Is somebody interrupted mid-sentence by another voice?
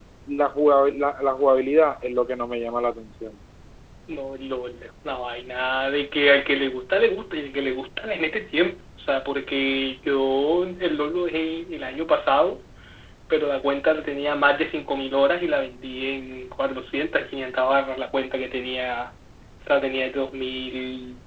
No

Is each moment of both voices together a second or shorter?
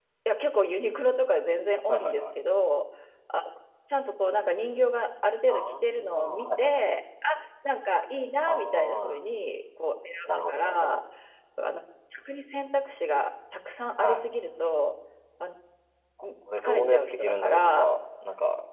No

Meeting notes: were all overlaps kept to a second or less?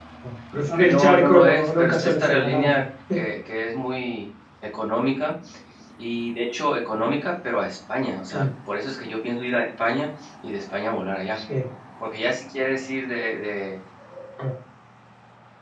No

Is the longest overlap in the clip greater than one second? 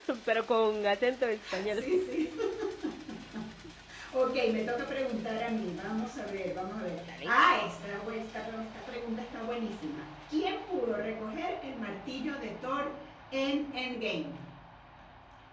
No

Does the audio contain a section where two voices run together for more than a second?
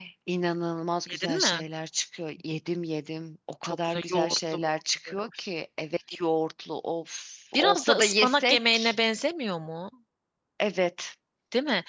Yes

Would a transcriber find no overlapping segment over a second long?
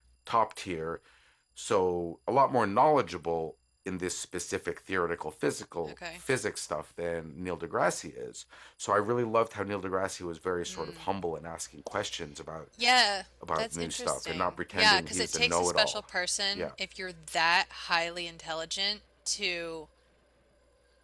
No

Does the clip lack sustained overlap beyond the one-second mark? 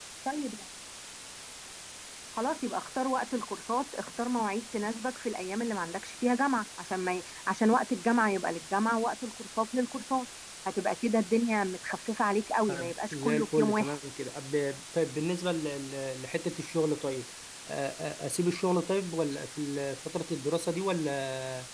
No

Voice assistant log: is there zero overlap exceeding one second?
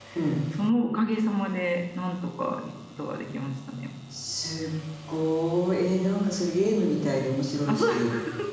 Yes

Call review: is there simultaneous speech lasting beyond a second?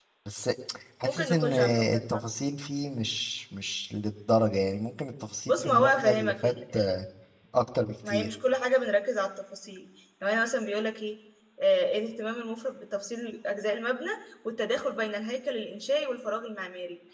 Yes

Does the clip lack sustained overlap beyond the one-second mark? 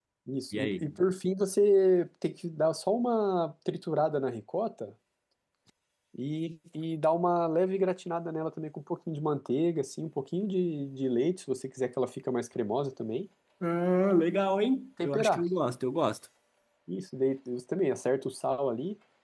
Yes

